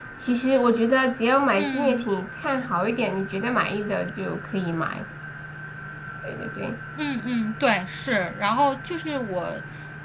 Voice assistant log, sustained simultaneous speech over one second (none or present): none